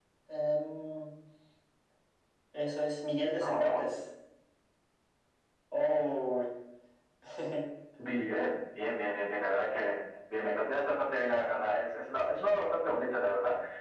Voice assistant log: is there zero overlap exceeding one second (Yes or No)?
Yes